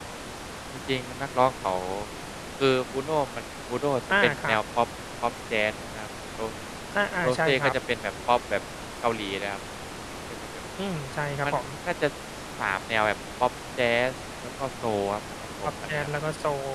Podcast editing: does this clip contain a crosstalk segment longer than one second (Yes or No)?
No